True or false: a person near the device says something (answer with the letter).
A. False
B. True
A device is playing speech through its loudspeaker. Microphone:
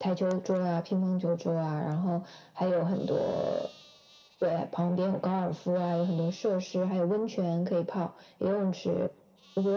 A